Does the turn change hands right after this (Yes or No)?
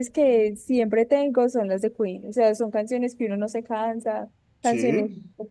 No